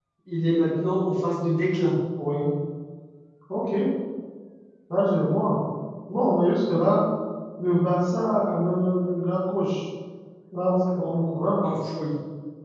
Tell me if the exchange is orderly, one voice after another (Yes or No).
Yes